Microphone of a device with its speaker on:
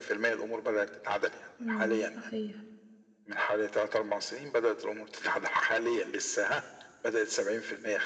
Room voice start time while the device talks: 1.6 s

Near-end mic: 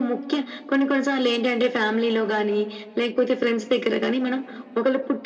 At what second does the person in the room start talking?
none

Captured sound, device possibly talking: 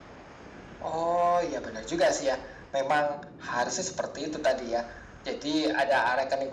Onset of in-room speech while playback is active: none

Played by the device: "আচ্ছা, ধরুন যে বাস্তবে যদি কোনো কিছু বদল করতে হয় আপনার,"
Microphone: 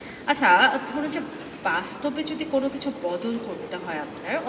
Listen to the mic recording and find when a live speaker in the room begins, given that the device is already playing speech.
none

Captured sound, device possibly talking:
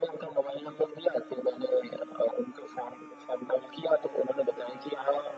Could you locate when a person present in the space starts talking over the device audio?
none

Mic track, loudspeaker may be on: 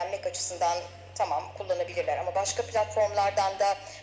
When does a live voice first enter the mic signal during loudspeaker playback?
none

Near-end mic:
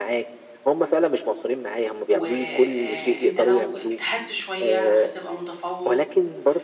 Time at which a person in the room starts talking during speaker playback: 2.1 s

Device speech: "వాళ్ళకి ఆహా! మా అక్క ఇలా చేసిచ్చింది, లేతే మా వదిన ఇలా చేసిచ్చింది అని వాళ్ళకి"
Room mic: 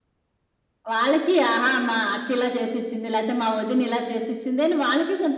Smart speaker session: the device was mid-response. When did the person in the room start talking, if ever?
none

